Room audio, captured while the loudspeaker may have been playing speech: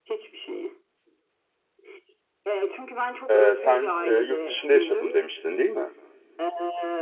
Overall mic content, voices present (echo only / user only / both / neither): both